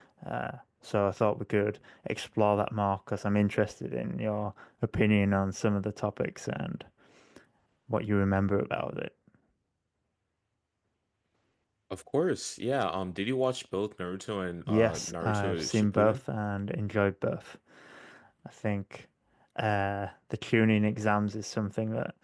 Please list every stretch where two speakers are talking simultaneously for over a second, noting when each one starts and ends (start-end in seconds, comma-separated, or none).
14.7-16.2